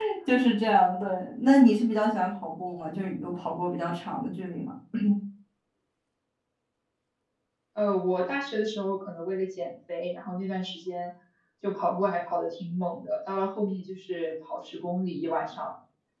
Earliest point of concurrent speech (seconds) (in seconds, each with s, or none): none